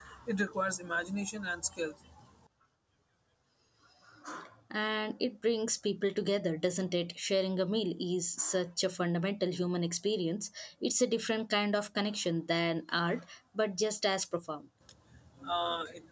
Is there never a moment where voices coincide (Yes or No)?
Yes